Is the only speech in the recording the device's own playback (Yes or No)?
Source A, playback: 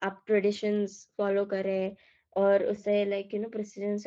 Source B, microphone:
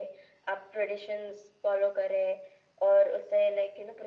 Yes